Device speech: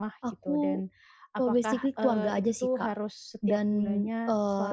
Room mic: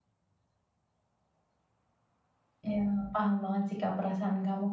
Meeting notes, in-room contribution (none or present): present